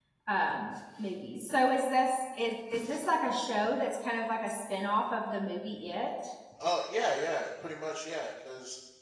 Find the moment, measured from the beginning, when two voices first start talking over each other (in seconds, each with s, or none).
none